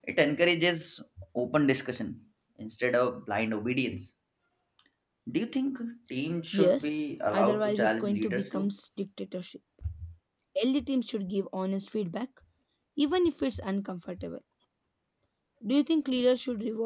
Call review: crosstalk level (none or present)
present